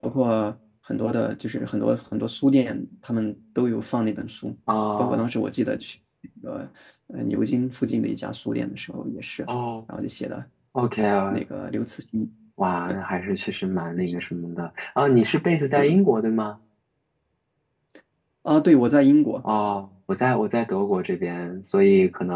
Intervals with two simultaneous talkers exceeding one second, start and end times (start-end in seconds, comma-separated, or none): none